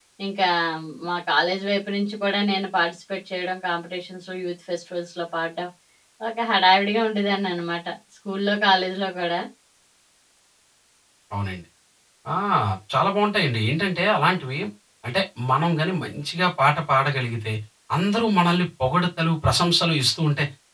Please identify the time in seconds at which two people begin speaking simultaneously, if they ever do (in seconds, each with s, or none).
none